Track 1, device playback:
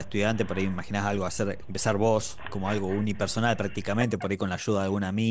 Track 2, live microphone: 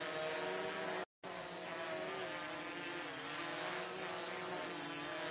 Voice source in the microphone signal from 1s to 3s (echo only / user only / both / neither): neither